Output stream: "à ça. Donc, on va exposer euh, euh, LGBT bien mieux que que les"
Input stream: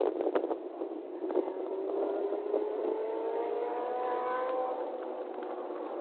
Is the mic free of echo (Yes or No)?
Yes